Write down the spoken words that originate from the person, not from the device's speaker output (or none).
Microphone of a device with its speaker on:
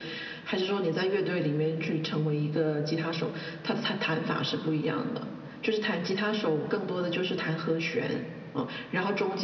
none